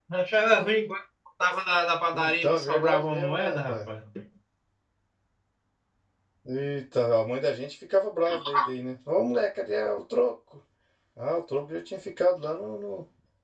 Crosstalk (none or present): present